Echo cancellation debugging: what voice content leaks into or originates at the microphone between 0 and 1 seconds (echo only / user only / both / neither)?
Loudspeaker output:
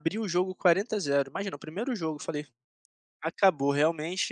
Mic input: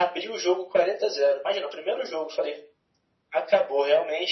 echo only